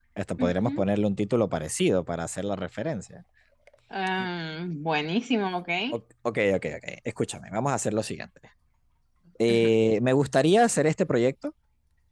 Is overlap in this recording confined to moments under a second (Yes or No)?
Yes